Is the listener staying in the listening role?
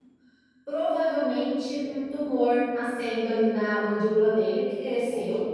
Yes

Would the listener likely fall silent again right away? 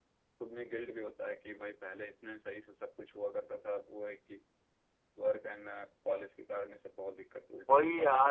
No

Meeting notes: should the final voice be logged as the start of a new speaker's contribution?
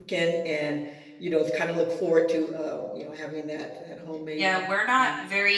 Yes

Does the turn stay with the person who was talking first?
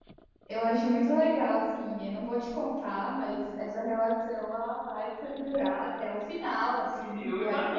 No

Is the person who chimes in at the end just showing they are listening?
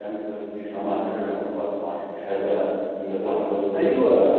No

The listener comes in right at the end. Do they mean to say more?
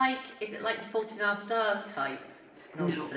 Yes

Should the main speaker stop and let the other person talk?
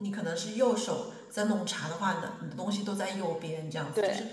No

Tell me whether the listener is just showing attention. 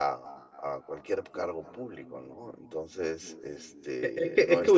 No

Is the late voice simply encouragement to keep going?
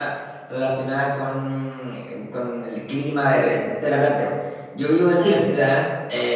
Yes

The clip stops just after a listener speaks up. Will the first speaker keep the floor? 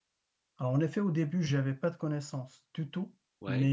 Yes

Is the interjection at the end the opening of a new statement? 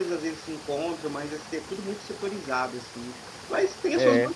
No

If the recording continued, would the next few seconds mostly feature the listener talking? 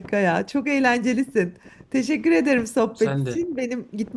No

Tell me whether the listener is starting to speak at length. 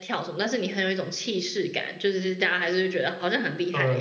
Yes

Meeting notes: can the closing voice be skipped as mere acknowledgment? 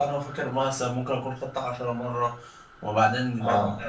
Yes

